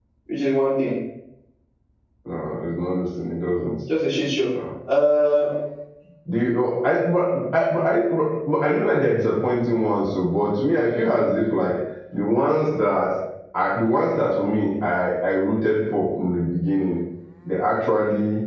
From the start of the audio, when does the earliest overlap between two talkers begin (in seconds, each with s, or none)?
none